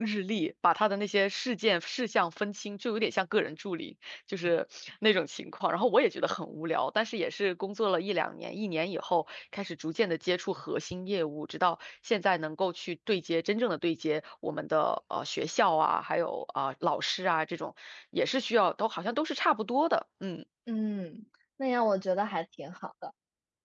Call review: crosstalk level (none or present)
none